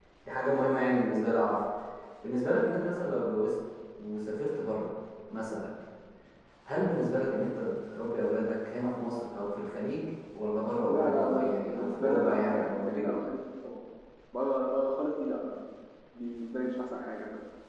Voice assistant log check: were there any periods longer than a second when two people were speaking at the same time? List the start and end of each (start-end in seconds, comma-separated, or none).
10.9-13.2